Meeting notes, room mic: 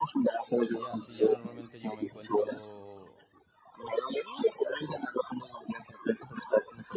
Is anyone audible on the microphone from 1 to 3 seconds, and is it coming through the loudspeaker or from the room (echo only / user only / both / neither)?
both